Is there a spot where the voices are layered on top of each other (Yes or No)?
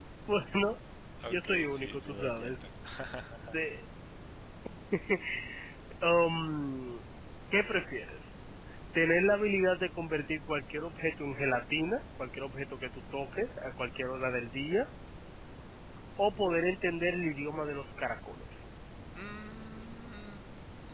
Yes